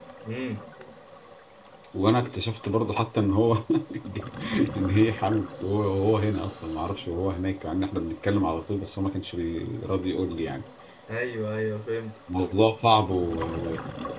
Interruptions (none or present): none